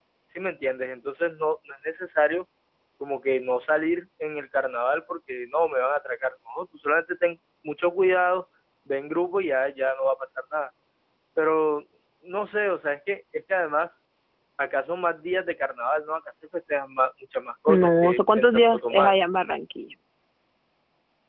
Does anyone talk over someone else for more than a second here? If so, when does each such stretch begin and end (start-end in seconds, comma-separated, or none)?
17.7-19.1